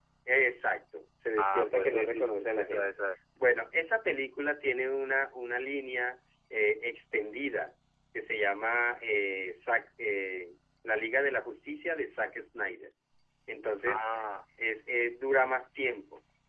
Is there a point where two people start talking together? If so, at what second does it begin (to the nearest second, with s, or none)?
1 s